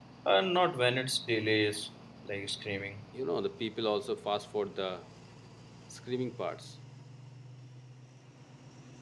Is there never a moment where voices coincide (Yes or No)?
Yes